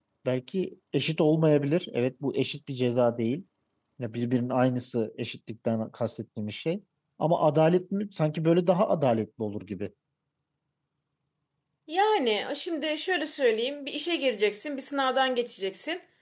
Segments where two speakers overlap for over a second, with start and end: none

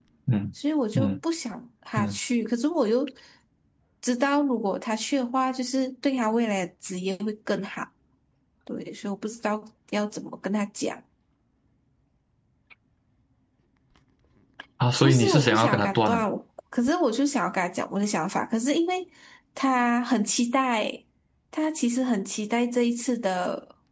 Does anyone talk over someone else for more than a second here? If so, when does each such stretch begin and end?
15.0-16.2

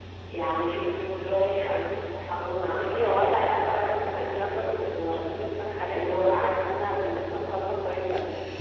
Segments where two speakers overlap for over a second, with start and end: 2.8-5.2, 5.9-7.4

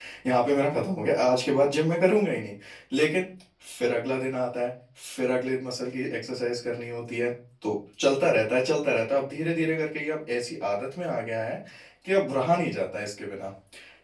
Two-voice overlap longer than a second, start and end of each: none

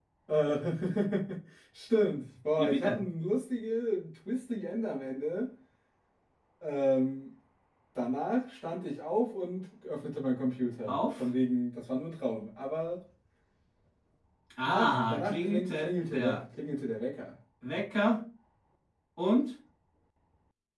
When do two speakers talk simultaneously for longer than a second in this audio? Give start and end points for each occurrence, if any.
14.6-16.4

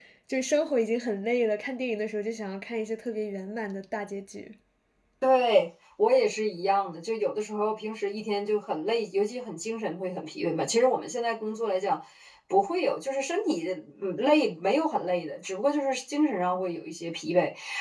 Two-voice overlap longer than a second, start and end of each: none

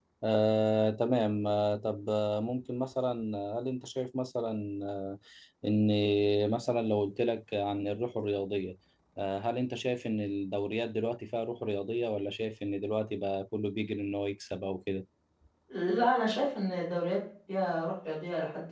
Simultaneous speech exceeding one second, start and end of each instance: none

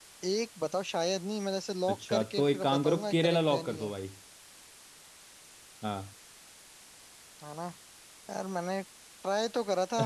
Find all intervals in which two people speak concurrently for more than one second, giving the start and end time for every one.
1.9-3.9

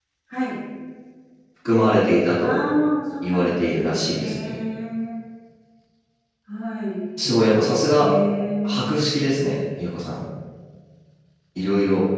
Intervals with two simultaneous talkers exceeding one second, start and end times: 3.2-4.6

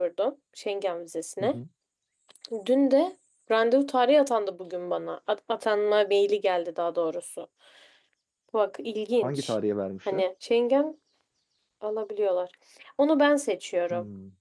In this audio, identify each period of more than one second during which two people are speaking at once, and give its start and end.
none

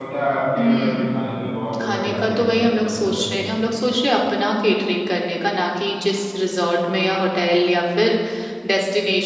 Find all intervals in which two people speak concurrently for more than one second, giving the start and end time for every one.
1.8-3.3

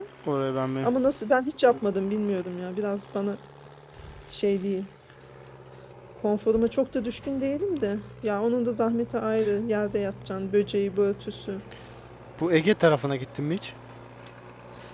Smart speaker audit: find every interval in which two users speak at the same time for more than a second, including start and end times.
none

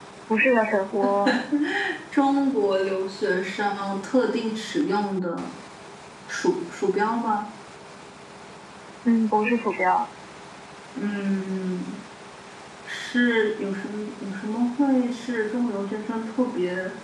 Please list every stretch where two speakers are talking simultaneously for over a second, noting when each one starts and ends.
none

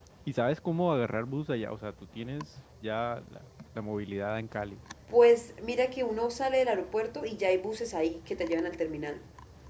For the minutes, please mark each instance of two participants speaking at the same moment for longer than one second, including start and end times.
none

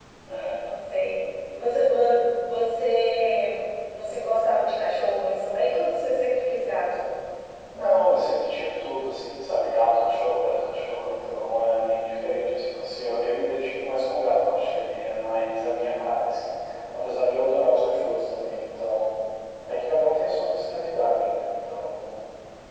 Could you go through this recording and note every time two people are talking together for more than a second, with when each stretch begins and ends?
none

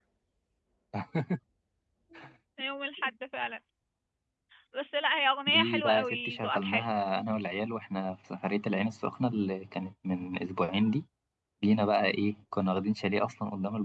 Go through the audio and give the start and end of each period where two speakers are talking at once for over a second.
5.5-6.8

